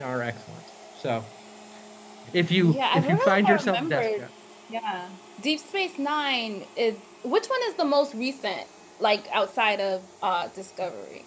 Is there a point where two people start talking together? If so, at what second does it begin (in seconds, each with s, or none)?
2.6 s